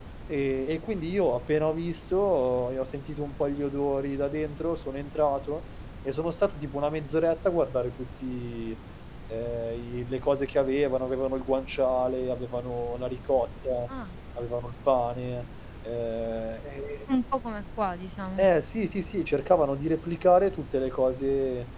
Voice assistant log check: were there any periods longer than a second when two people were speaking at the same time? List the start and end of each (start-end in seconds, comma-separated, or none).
none